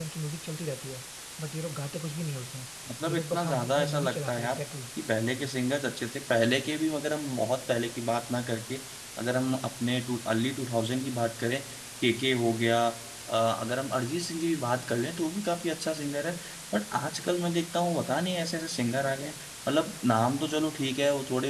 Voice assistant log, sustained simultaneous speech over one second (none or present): present